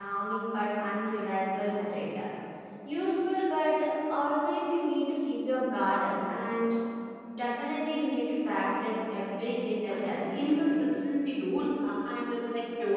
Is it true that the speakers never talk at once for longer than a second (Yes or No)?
No